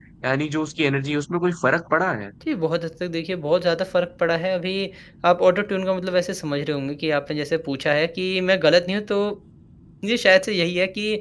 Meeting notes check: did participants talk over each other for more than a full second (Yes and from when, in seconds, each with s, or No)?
No